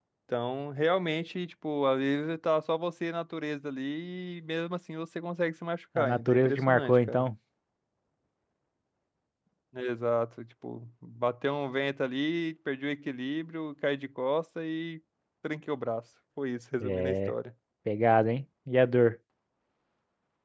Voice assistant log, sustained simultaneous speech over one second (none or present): present